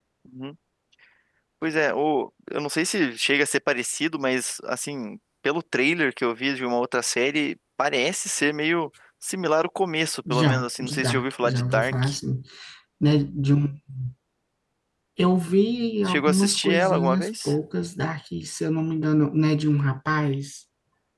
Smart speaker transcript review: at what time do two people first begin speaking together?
10.3 s

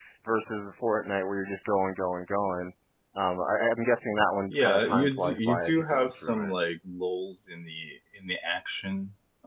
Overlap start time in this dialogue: 4.5 s

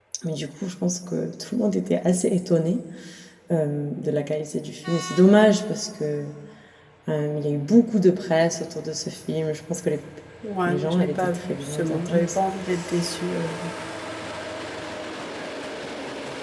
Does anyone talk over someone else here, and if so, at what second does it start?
10.7 s

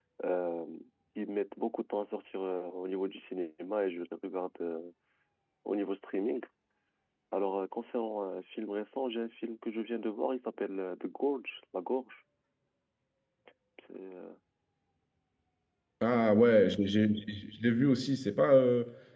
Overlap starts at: none

